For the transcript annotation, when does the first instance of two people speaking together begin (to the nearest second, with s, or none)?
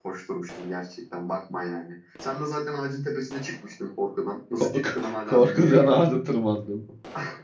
5 s